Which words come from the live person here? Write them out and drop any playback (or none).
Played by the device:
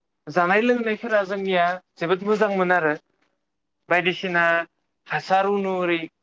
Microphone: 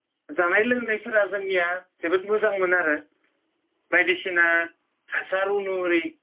none